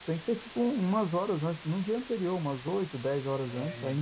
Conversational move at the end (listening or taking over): listening